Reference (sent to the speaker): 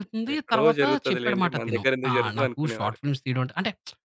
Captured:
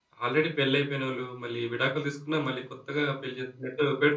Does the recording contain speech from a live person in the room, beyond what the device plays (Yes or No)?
Yes